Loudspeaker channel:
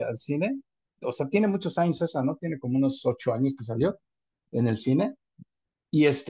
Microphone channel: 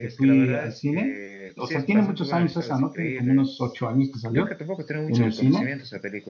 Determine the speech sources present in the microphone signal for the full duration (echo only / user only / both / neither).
both